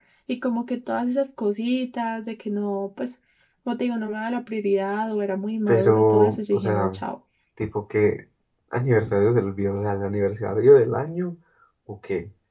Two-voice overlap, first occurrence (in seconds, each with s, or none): 5.7 s